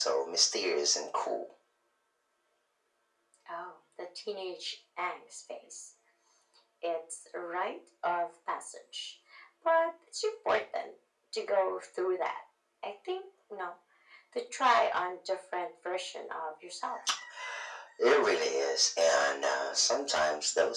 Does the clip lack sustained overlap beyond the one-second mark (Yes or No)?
Yes